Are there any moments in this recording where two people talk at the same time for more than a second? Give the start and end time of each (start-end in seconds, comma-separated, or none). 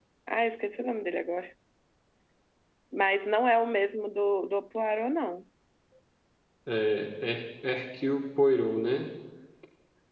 none